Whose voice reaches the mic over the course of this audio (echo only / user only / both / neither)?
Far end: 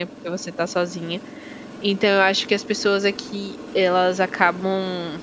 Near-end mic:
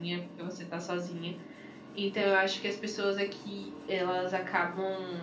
echo only